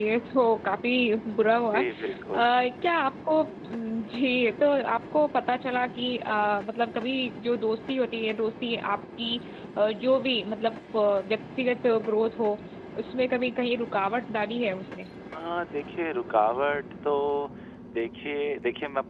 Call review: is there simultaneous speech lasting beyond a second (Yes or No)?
No